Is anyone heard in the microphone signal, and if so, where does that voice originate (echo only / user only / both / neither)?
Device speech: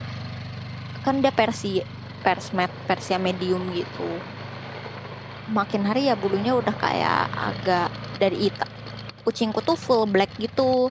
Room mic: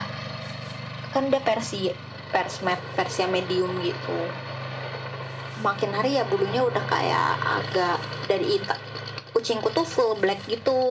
echo only